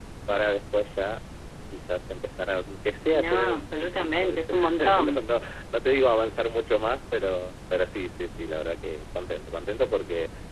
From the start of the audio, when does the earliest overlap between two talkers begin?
3.1 s

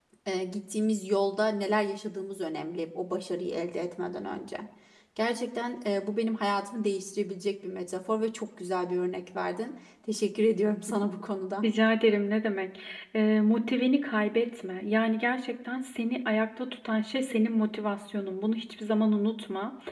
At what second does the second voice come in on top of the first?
none

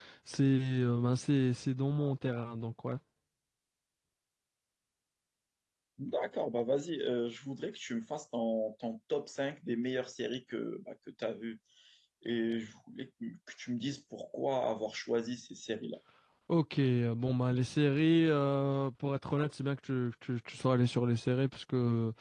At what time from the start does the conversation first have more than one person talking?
none

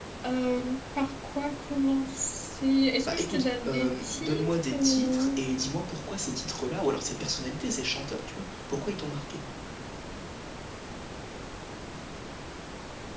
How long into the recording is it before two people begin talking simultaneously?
3.0 s

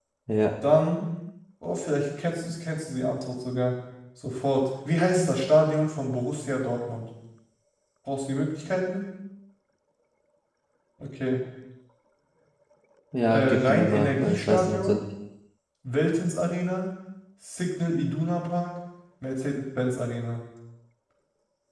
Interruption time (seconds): 13.3 s

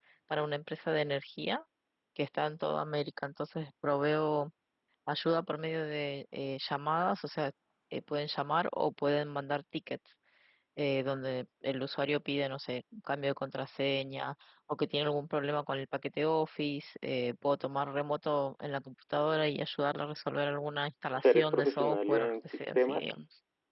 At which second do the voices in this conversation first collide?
21.2 s

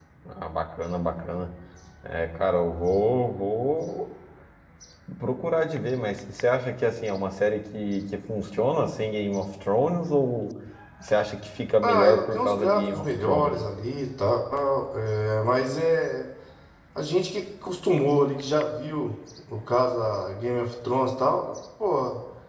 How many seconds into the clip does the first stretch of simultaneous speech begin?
11.8 s

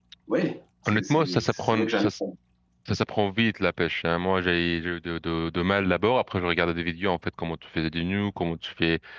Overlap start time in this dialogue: 0.8 s

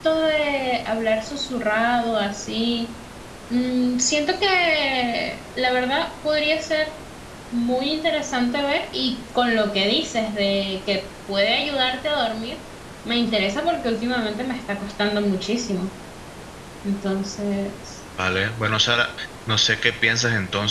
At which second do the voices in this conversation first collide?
none

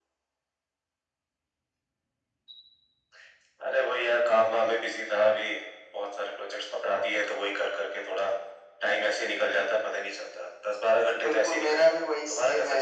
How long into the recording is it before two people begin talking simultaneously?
11.2 s

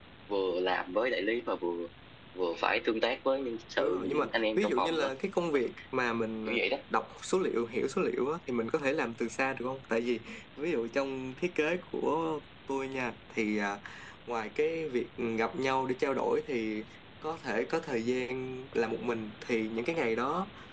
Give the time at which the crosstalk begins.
3.8 s

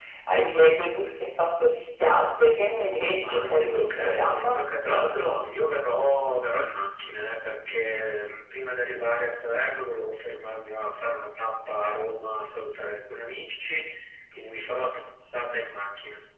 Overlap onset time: 3.2 s

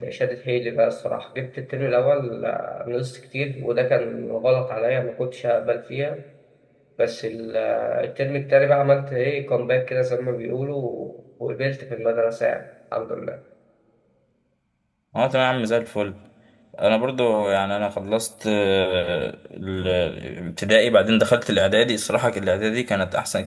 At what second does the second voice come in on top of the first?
none

